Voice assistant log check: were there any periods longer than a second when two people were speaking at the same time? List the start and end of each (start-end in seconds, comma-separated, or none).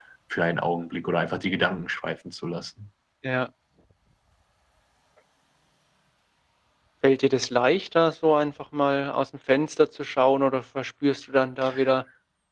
none